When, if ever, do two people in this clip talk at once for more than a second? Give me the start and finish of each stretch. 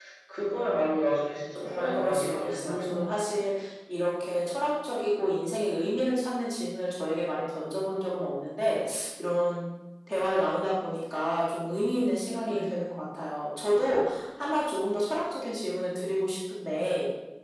1.6-3.1

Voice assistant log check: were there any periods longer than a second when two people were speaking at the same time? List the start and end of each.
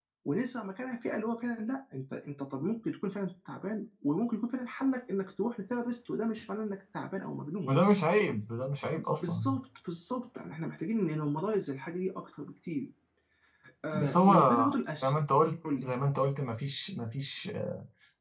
13.9-15.2

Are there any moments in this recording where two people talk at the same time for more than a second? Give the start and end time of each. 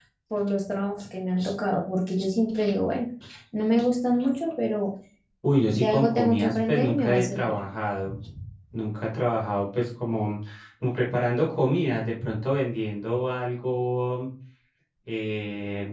5.7-7.5

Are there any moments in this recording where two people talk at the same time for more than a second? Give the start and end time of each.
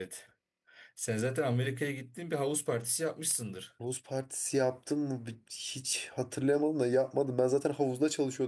none

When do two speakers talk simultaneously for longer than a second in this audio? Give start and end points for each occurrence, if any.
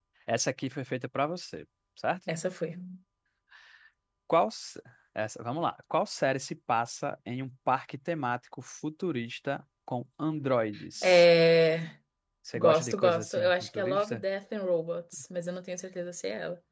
12.6-14.2

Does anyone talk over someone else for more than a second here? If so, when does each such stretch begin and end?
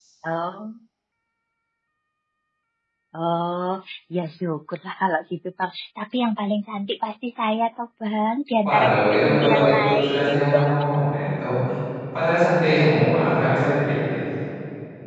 8.6-10.3

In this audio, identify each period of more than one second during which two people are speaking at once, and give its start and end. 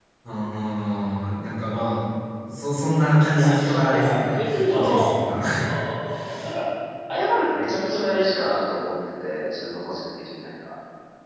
3.4-5.1

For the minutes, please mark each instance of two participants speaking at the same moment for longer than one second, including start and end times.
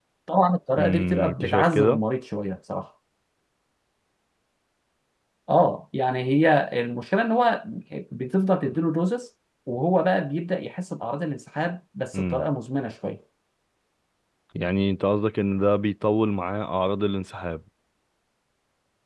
0.8-2.0

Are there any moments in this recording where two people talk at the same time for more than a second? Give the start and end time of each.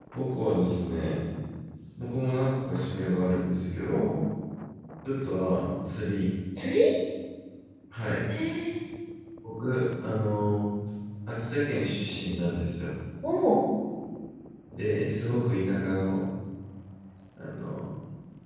none

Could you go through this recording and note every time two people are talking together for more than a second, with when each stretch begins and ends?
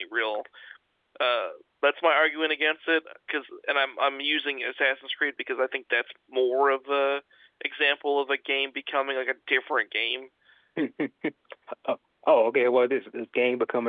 none

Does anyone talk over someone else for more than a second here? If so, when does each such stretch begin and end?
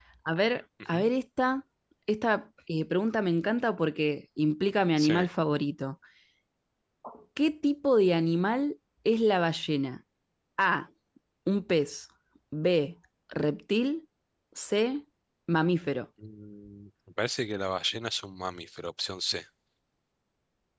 none

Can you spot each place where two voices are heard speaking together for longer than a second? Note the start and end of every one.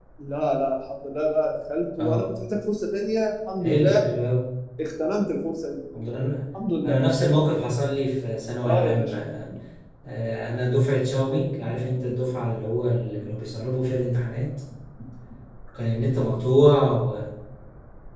none

